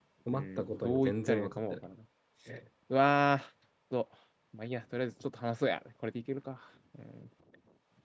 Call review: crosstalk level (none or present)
present